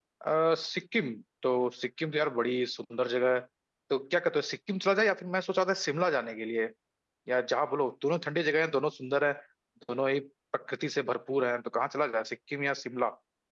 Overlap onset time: none

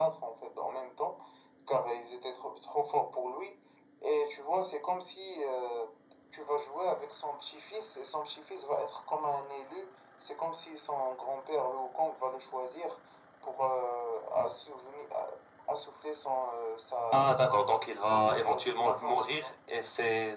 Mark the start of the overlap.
17 s

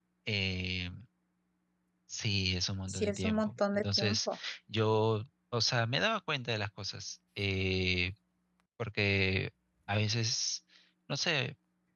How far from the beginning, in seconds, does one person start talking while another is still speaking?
3 s

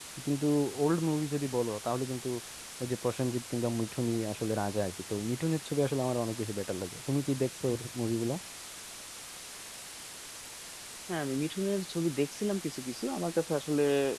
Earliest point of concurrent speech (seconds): none

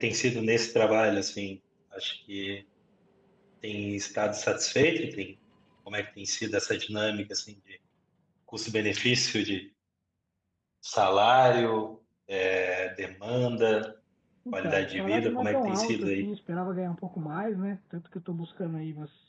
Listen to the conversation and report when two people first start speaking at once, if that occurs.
15 s

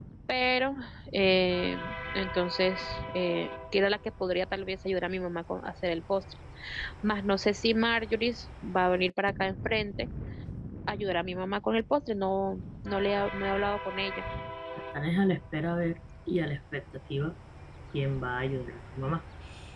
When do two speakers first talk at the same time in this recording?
none

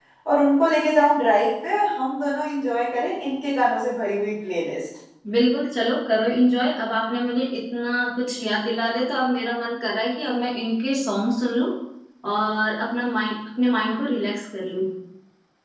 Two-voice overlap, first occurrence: none

